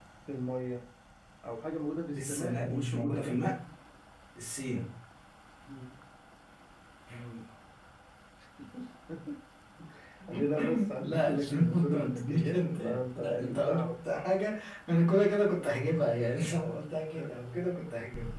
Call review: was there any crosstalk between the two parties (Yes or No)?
Yes